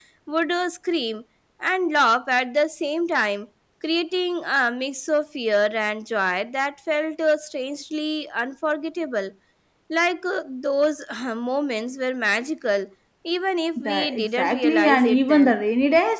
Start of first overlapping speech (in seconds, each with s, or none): 13.8 s